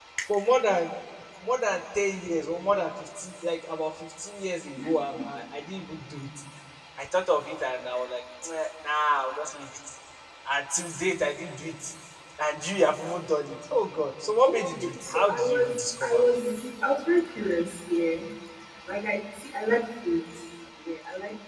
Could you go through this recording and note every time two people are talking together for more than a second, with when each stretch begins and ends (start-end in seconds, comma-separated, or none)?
14.4-16.2